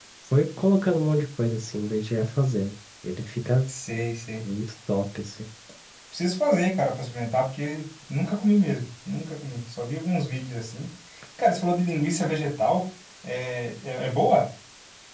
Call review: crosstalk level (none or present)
none